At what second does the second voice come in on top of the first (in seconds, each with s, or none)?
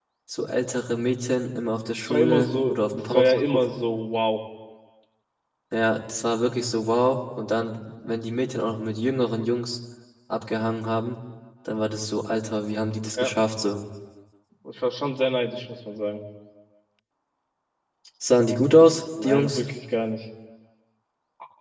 2.1 s